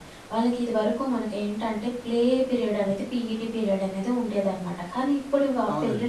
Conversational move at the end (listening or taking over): listening